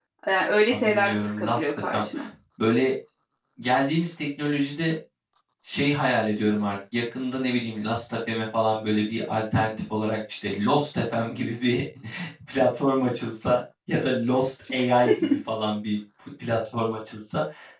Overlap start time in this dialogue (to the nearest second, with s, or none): 1 s